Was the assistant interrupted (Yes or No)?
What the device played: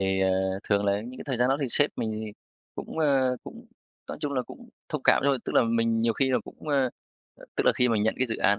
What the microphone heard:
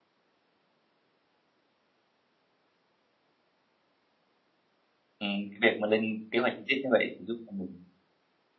Yes